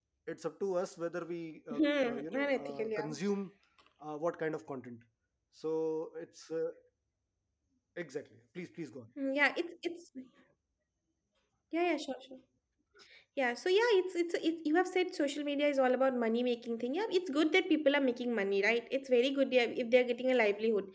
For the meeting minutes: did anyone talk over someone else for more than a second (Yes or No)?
Yes